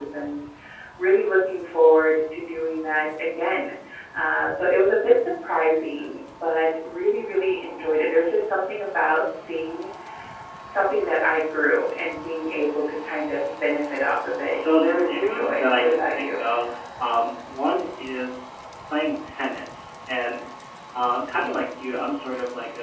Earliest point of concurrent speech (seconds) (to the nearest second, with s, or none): 15 s